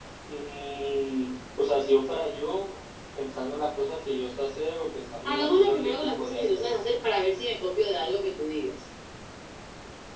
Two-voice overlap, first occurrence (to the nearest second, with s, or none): 5 s